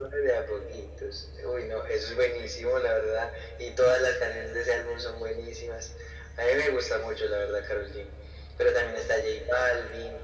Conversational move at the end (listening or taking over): listening